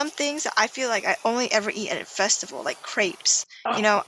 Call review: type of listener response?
listening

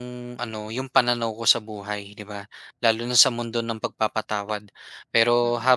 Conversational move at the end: listening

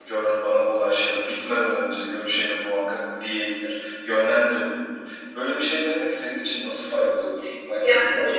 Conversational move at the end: taking over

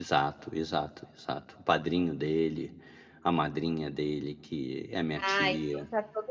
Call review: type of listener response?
taking over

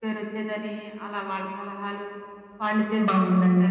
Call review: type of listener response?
taking over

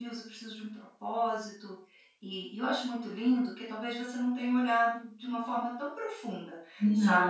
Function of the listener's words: listening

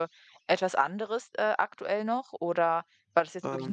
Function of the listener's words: listening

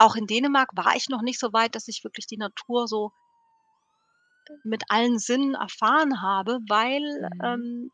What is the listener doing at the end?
listening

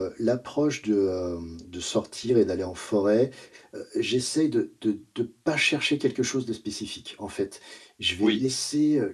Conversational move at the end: listening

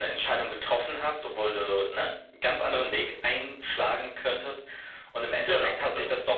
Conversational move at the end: listening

